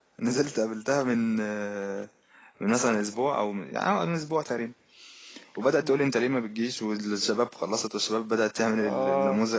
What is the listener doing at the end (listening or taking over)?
listening